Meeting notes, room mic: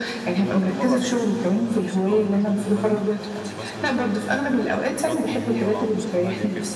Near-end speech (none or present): present